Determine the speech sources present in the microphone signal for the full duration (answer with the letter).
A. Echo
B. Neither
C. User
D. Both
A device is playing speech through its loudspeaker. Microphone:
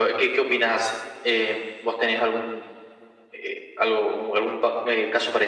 A